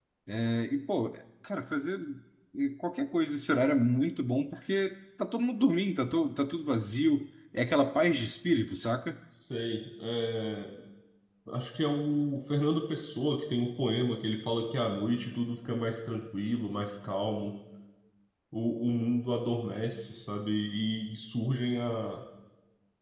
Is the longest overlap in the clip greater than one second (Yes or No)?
No